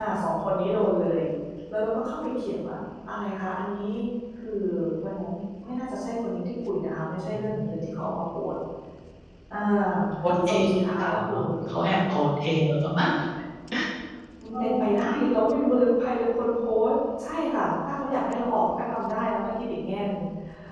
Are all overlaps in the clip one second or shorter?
No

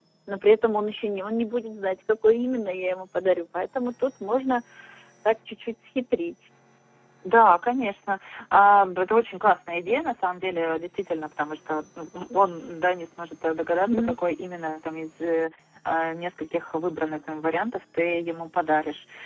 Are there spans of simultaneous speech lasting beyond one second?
No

